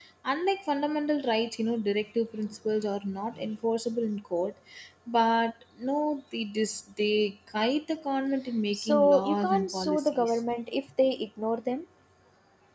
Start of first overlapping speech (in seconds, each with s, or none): 8.7 s